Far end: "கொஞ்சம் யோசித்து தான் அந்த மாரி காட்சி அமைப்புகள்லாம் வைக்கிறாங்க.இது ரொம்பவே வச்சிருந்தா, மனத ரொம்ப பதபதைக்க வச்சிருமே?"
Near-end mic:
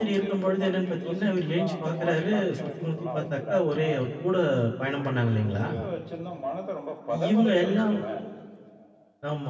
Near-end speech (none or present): present